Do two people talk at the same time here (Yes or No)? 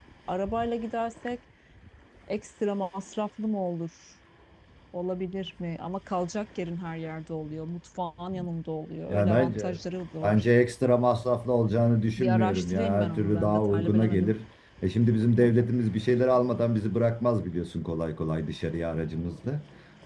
Yes